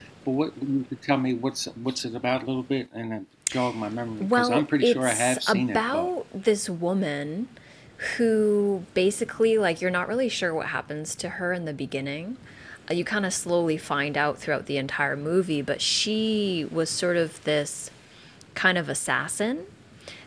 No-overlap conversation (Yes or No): No